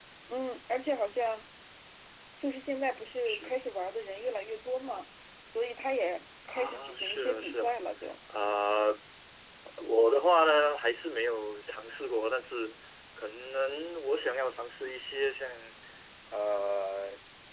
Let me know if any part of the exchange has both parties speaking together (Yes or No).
Yes